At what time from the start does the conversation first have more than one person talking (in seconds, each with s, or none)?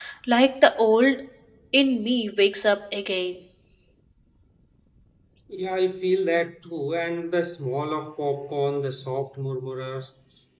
none